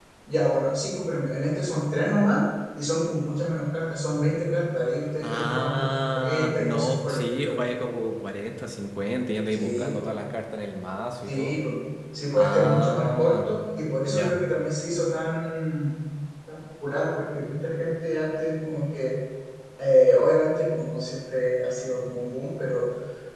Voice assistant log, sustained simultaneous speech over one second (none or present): present